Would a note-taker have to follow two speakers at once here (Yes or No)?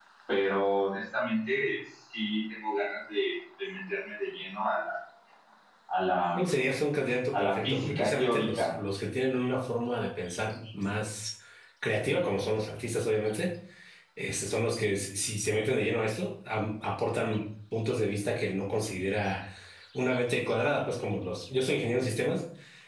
Yes